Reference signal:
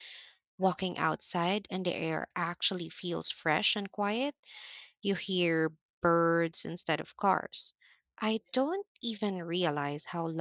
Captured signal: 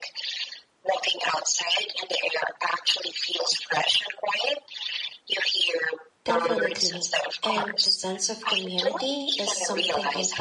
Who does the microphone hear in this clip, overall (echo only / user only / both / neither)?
both